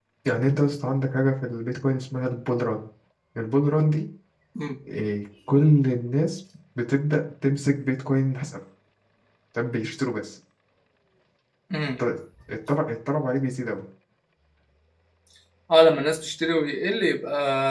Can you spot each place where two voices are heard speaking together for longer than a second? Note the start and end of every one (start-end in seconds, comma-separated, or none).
none